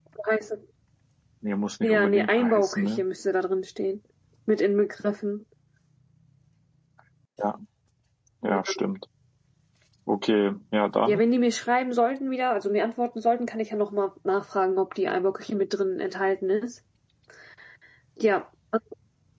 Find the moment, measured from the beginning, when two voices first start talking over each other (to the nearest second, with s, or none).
2 s